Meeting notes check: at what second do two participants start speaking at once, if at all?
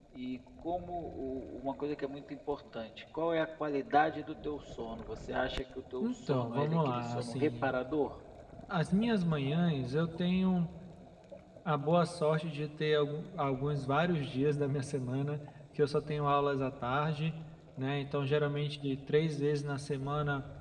6 s

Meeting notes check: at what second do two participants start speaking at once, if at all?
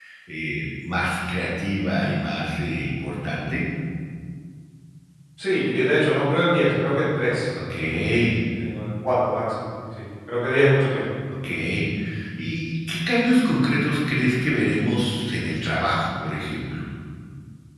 none

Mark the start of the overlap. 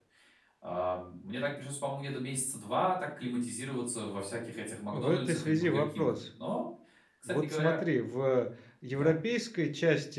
5 s

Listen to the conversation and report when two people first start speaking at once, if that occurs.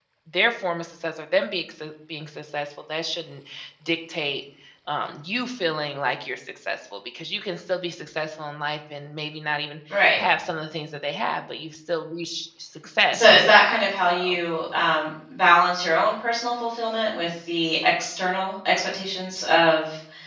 13 s

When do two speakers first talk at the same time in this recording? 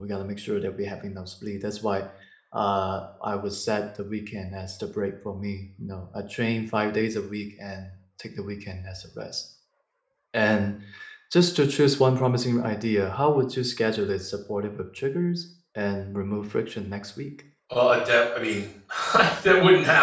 none

